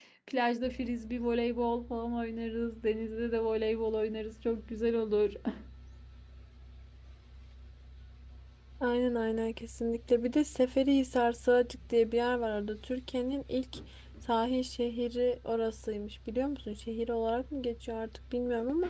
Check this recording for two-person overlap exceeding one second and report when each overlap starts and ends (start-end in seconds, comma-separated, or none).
none